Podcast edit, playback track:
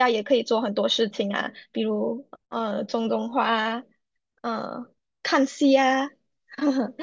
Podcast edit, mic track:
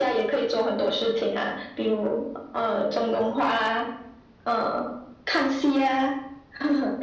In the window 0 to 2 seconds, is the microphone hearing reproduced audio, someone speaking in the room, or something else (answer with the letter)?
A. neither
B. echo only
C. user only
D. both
B